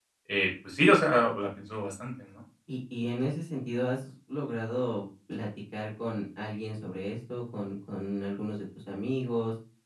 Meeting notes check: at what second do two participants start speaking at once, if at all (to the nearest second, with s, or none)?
none